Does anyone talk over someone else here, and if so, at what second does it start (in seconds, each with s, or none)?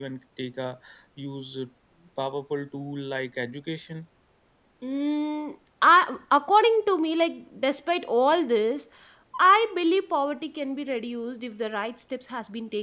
none